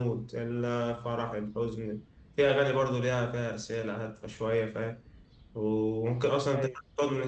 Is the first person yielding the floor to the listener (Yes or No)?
No